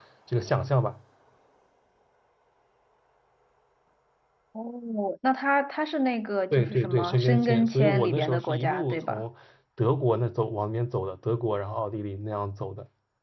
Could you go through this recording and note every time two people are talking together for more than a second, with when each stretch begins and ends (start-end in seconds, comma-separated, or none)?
6.5-9.2